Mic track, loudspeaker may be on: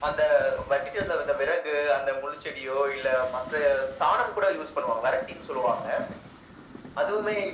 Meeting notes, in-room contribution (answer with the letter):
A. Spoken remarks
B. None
B